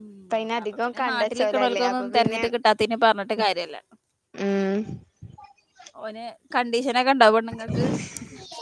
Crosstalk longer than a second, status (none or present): present